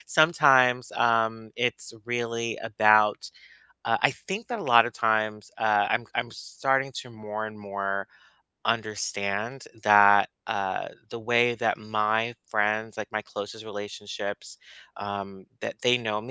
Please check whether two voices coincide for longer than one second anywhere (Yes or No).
No